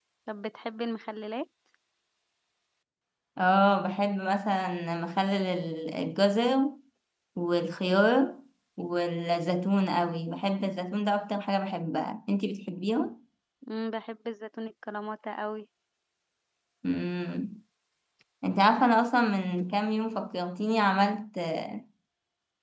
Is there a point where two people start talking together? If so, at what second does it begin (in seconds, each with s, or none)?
none